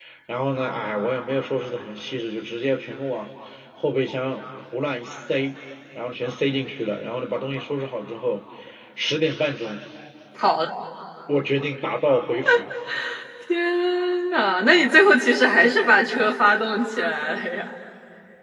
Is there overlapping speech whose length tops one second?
No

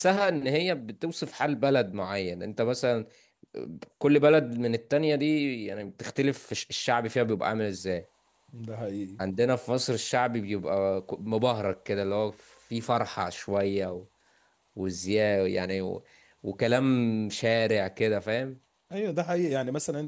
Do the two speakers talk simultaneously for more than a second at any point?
No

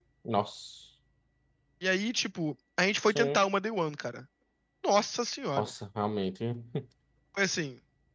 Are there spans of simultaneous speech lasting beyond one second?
No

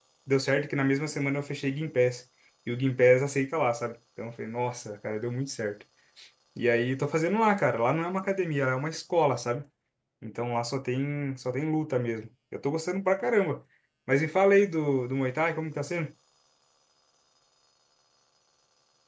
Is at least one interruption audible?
No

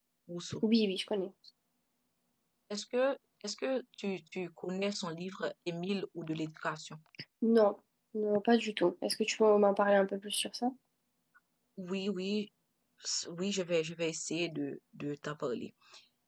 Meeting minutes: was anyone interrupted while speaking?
No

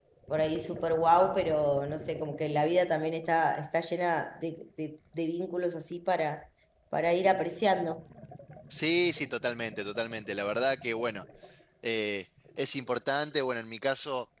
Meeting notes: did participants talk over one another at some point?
No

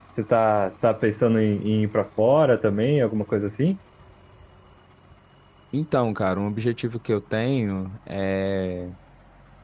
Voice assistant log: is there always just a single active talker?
Yes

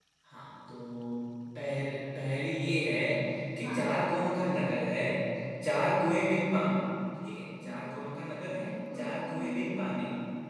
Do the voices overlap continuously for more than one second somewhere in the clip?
Yes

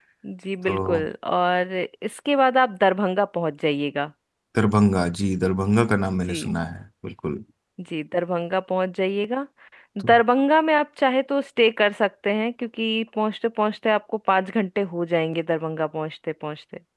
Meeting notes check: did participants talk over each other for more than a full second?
No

